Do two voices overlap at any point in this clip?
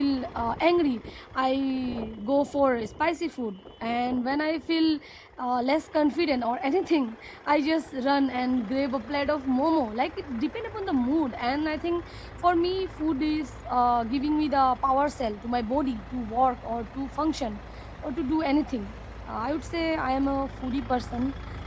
No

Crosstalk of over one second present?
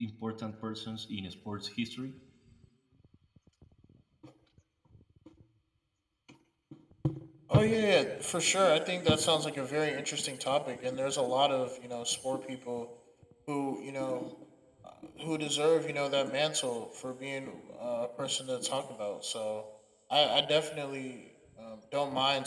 No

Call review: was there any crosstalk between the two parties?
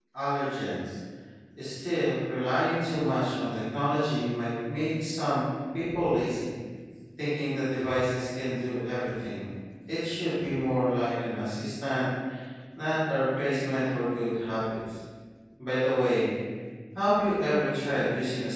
No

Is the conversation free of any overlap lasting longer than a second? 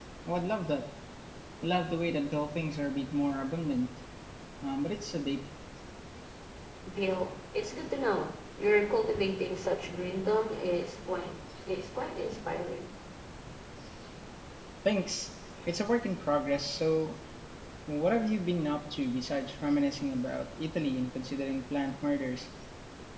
Yes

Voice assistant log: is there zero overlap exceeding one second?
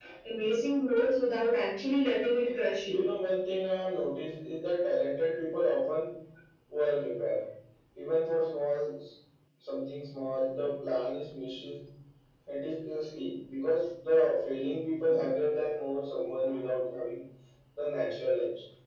Yes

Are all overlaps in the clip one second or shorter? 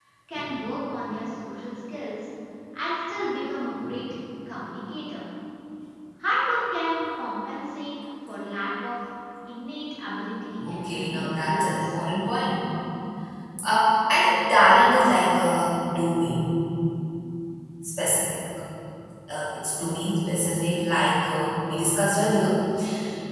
No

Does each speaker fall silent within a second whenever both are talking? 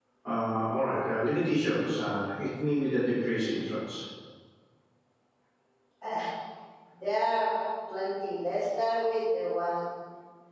Yes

